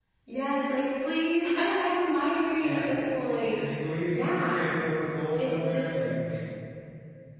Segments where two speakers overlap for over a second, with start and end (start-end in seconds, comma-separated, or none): none